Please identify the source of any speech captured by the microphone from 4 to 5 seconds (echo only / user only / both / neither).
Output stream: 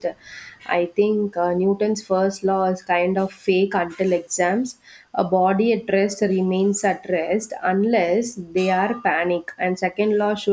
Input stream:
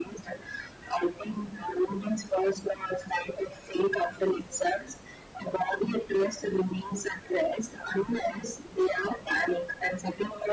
echo only